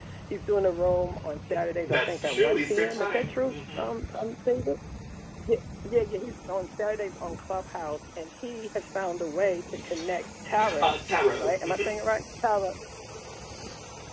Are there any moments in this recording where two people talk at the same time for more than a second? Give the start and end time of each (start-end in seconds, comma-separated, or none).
1.8-3.8